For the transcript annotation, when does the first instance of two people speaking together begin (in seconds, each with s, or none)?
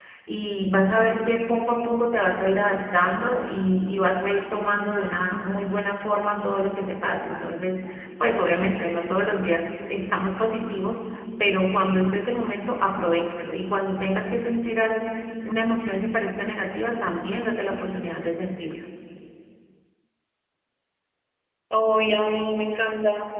none